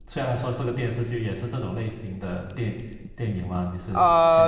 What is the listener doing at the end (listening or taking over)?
taking over